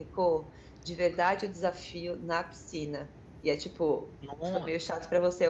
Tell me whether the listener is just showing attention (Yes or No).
Yes